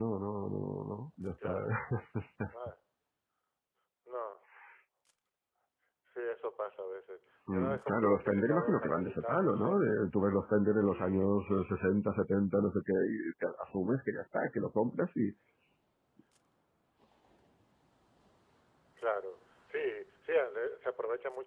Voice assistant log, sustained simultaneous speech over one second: present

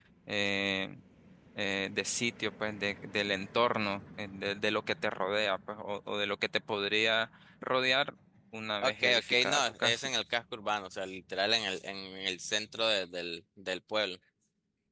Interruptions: present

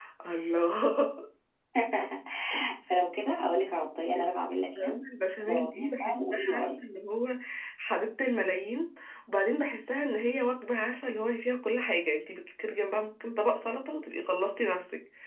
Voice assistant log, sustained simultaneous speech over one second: present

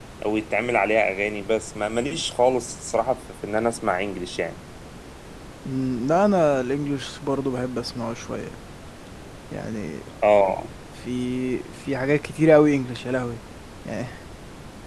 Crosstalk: none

